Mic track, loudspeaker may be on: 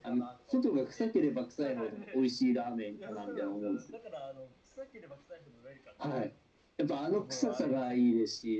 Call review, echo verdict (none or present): present